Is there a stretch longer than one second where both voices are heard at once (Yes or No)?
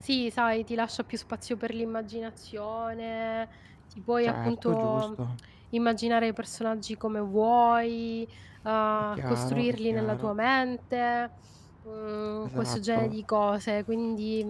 Yes